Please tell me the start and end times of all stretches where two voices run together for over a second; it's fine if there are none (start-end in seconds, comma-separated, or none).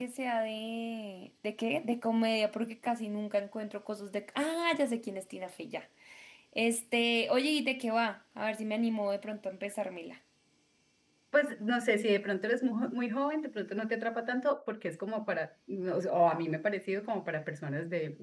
none